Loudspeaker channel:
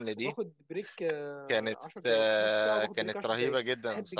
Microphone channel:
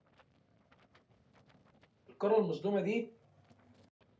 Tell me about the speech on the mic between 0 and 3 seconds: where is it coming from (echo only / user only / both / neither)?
user only